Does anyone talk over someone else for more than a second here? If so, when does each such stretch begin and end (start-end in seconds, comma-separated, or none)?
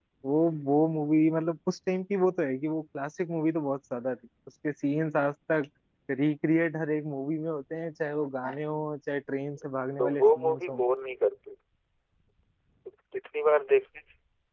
9.6-10.8